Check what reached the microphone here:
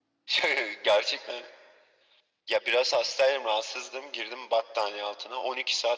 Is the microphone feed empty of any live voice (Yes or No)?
Yes